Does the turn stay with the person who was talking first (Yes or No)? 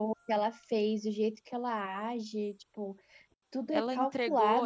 No